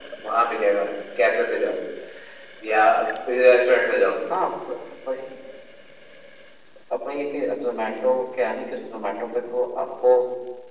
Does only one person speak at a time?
Yes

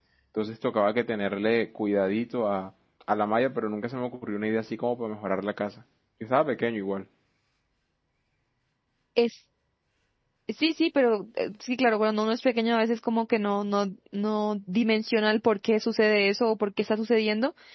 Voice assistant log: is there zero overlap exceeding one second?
Yes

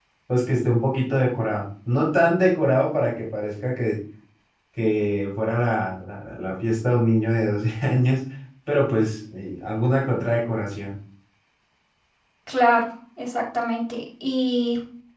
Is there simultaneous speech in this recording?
No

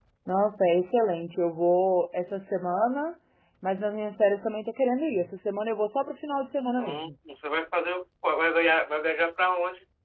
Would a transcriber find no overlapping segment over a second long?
Yes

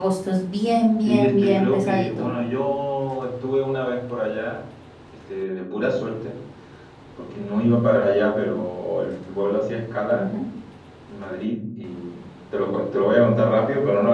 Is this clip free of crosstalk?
No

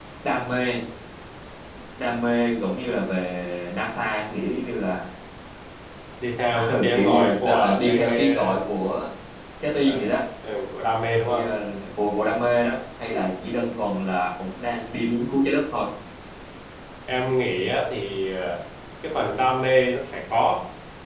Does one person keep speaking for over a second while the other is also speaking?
Yes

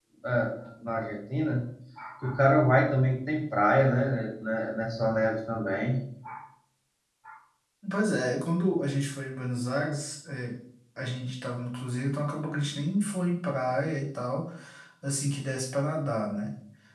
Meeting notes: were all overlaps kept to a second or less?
Yes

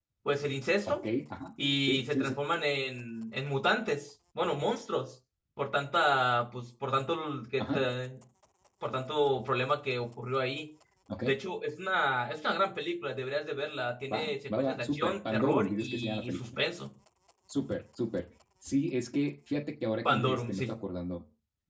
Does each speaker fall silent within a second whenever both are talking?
No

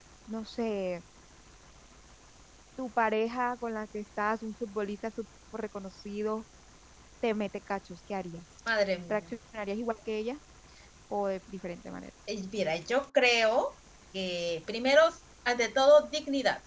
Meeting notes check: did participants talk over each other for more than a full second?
No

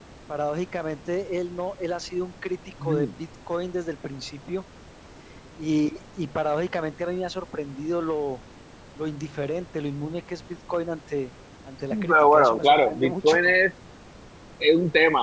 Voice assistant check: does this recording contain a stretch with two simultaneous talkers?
Yes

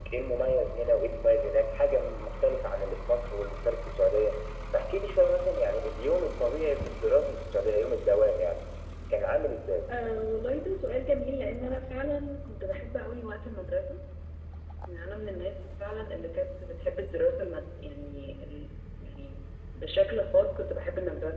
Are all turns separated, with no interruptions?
Yes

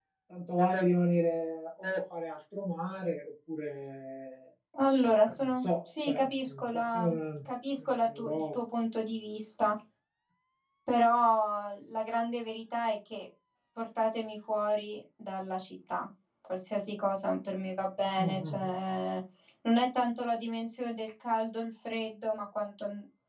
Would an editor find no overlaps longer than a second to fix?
No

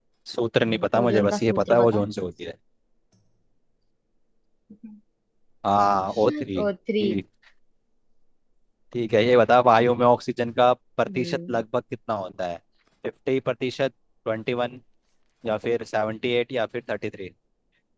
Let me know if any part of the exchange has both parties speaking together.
Yes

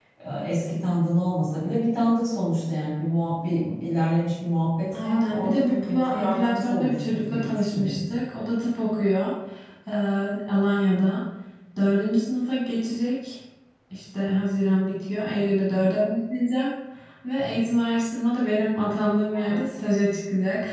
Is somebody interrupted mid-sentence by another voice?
Yes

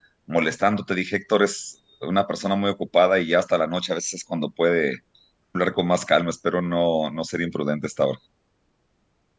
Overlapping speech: No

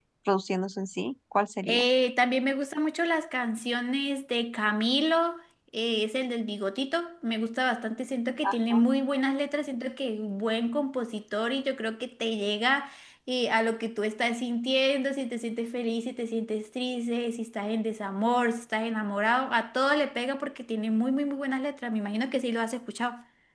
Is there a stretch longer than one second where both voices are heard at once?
No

